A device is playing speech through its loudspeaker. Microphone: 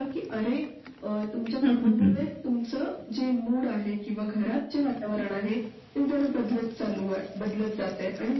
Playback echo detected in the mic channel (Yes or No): Yes